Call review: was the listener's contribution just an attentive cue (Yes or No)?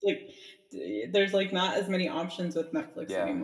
No